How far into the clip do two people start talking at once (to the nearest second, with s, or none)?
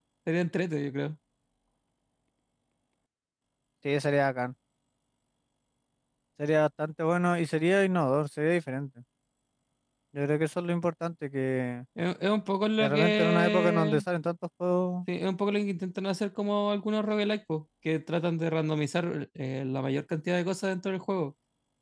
13 s